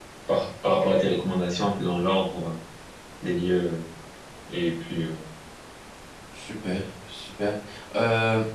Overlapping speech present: No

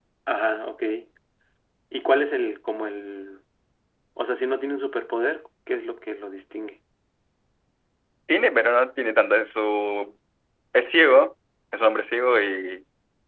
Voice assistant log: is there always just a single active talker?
Yes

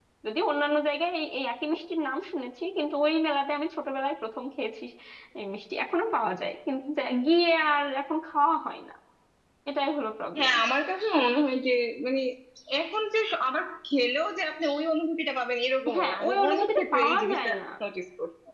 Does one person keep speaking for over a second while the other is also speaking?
Yes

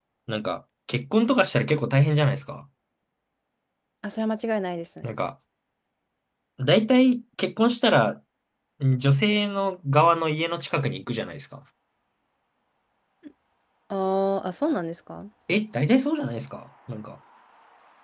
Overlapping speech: No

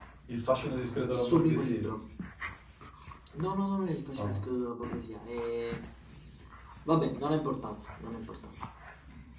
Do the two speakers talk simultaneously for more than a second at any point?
Yes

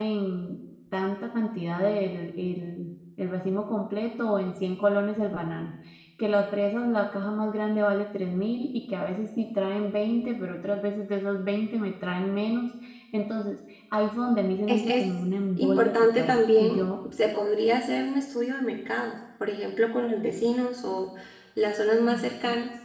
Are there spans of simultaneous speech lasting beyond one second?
Yes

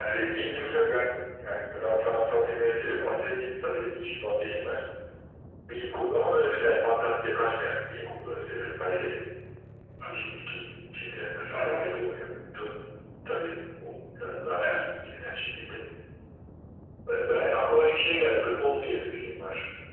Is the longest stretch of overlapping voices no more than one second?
Yes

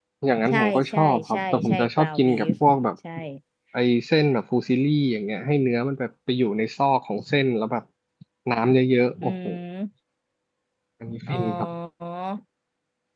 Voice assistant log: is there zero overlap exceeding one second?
No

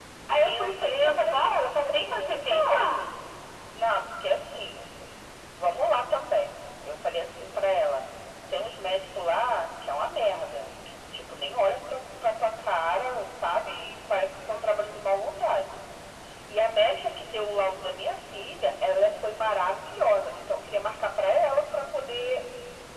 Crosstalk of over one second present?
Yes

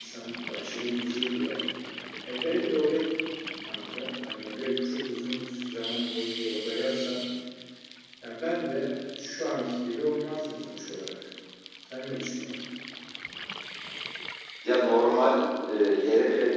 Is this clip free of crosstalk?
Yes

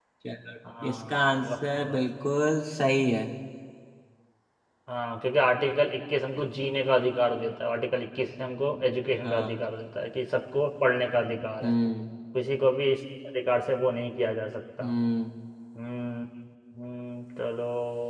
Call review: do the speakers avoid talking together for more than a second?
No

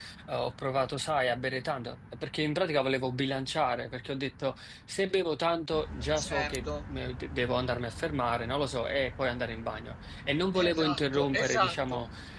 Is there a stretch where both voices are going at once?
Yes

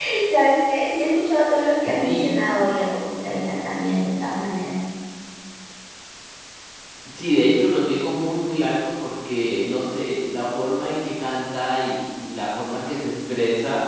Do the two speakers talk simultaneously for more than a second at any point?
No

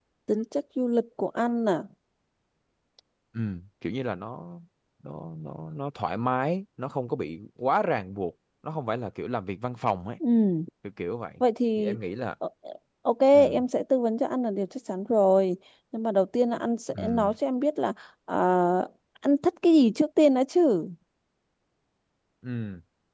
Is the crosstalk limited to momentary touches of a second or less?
Yes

